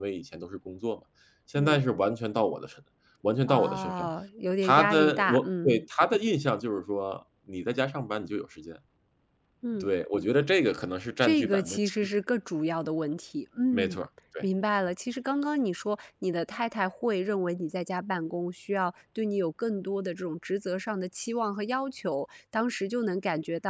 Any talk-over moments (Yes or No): Yes